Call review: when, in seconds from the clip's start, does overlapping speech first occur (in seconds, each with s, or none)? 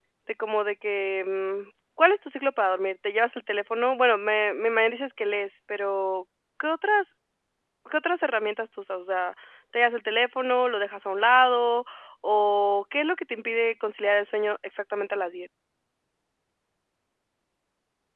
none